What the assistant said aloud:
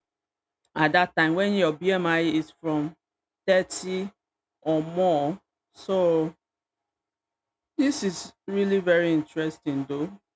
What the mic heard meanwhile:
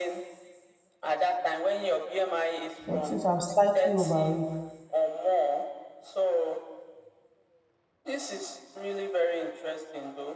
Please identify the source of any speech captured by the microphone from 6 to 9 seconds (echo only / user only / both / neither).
echo only